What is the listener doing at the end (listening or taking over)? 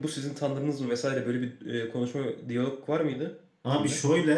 taking over